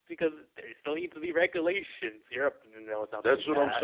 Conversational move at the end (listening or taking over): taking over